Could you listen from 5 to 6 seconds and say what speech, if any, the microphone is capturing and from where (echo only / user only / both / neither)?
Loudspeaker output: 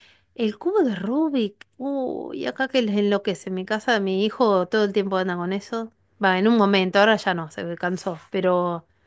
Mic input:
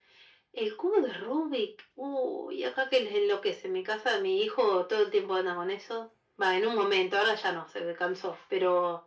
echo only